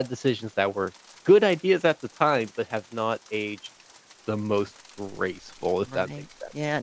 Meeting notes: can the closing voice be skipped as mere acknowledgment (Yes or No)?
No